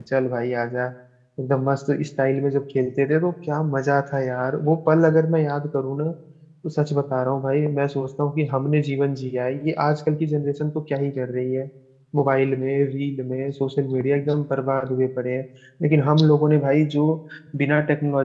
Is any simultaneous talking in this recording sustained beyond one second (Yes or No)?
No